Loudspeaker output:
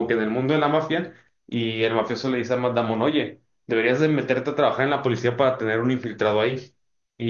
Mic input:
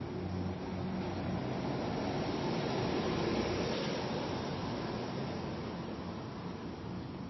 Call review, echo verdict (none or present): none